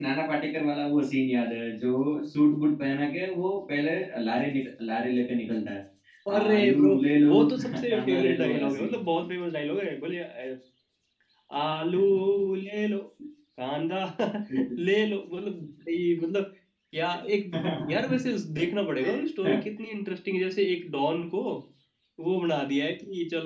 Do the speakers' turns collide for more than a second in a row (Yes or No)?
Yes